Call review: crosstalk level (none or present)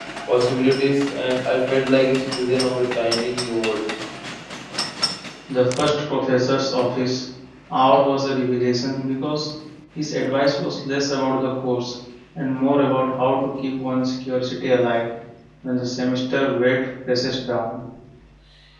none